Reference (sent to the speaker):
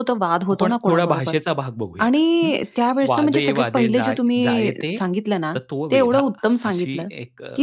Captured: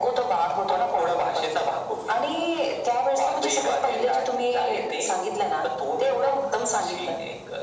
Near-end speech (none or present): none